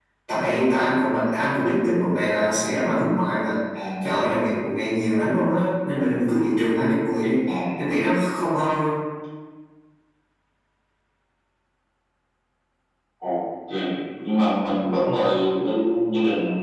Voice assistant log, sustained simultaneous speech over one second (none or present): none